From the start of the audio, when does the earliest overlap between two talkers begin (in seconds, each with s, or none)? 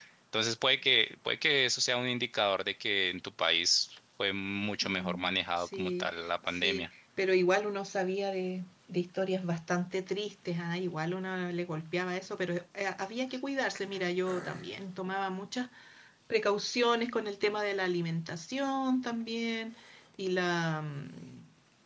4.8 s